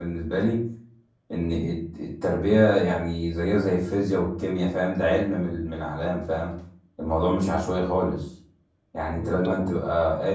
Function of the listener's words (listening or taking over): listening